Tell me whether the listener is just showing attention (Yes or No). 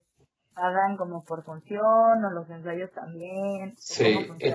No